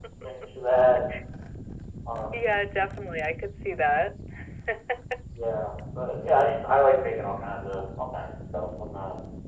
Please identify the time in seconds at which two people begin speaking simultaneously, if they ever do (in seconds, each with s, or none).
none